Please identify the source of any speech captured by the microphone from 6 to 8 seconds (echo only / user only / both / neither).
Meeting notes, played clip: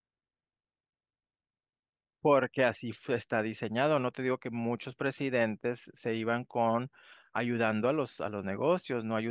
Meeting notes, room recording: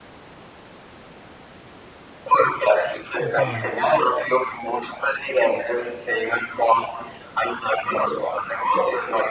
echo only